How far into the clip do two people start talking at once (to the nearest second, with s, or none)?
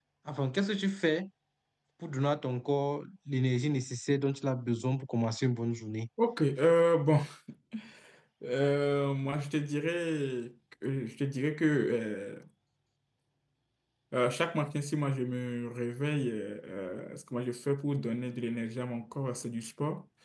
none